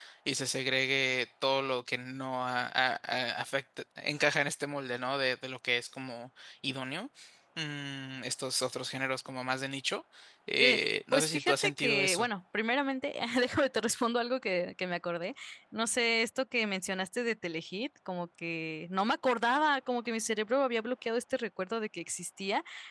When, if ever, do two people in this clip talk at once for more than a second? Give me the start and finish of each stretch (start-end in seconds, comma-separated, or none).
10.6-12.3